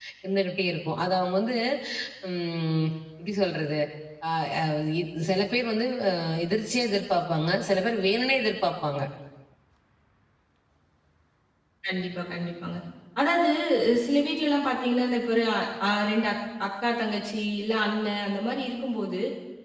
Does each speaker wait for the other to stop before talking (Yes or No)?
Yes